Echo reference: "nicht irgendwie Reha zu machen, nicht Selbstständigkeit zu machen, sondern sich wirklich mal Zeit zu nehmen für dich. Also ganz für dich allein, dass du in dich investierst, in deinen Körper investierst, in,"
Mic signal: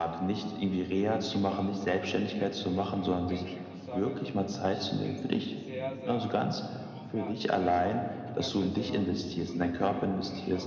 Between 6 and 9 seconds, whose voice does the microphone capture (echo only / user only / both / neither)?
both